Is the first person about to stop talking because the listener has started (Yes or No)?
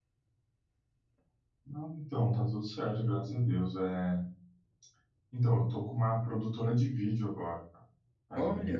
Yes